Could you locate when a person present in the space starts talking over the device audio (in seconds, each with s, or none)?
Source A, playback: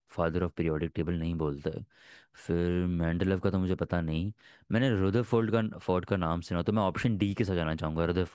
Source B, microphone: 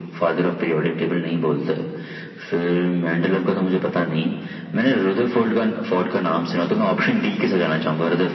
none